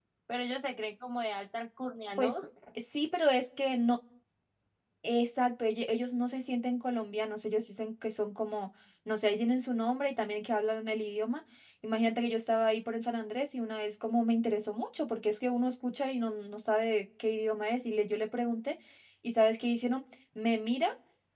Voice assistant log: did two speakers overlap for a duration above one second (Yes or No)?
No